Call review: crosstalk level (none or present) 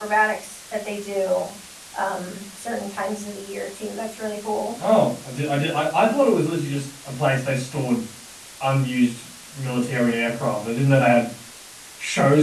none